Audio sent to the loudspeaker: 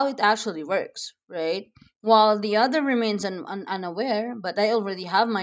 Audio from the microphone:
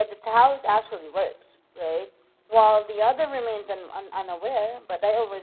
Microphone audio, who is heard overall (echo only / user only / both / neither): echo only